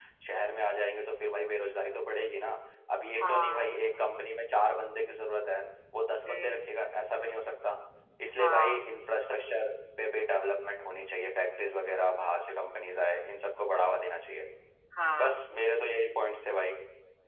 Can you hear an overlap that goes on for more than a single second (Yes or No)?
No